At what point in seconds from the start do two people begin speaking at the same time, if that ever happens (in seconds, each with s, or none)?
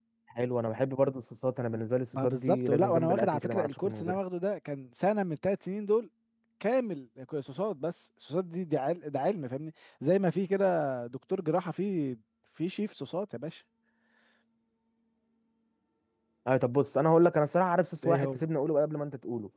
2.1 s